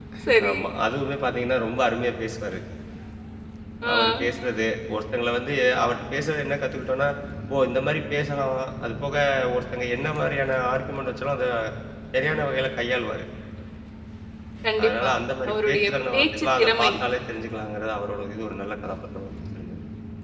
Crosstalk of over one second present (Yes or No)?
Yes